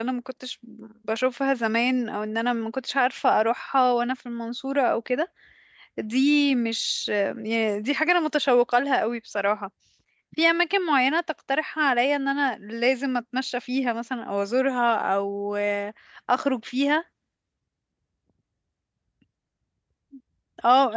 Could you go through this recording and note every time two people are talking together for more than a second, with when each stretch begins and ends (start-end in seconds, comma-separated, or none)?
none